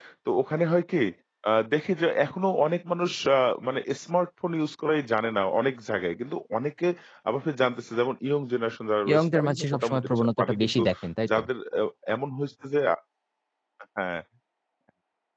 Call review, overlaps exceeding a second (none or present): present